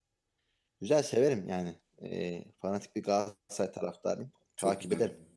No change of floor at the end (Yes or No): No